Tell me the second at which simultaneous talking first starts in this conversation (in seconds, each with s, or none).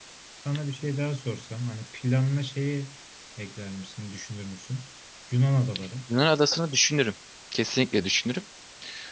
none